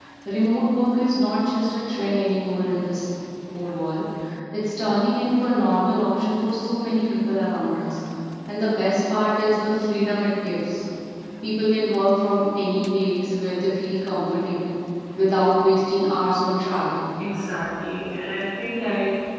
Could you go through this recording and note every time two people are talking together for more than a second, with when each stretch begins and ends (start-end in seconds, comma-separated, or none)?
none